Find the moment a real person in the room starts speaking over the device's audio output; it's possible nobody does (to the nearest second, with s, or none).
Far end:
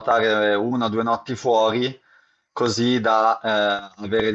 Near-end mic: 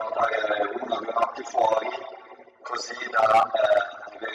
none